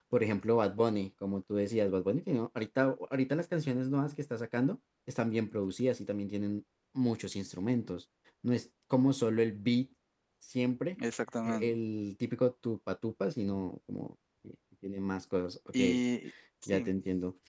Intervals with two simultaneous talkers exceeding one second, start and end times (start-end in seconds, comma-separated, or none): none